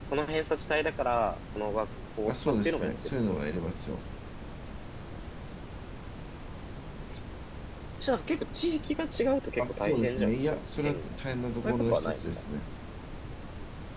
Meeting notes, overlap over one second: present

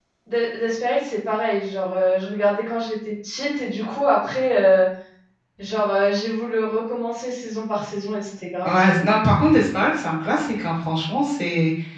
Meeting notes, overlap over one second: none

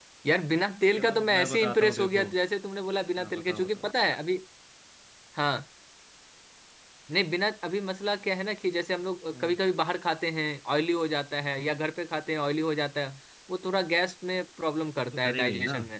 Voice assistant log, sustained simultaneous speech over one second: present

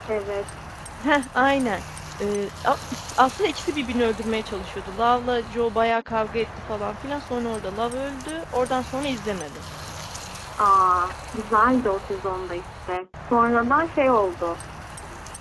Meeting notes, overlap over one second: none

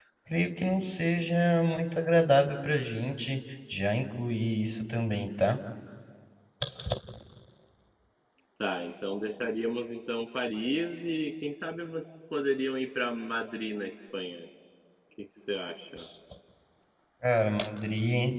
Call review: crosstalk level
none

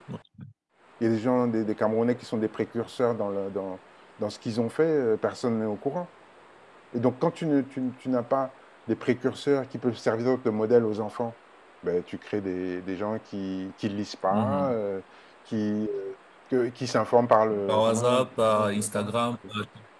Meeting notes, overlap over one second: present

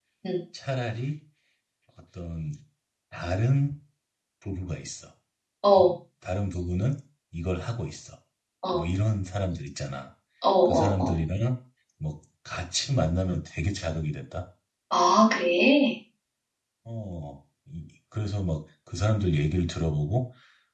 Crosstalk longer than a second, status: none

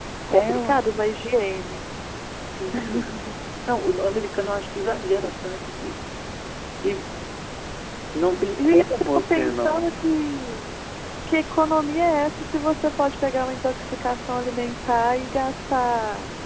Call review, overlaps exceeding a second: present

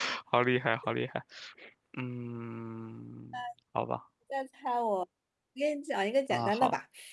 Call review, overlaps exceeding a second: none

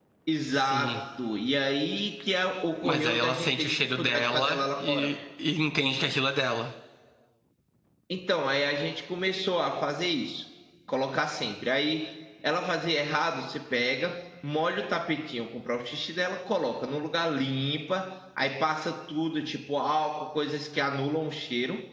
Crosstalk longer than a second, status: present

